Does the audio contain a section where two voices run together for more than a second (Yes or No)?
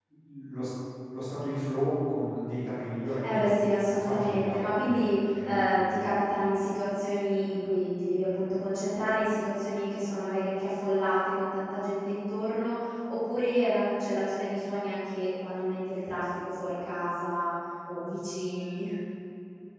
Yes